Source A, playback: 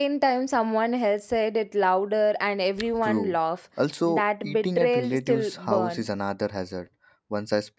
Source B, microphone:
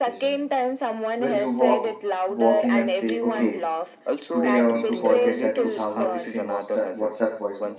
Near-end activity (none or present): present